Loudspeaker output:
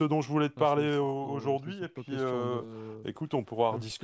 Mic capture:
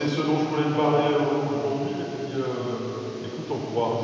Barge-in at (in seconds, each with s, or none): none